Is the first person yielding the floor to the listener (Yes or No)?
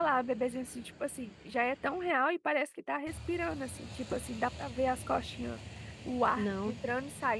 No